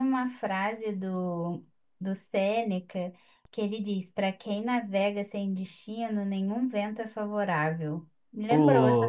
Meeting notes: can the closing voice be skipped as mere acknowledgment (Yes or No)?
No